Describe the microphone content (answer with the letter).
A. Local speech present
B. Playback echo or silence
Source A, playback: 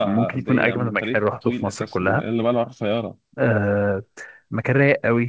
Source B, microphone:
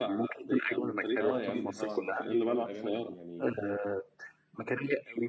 A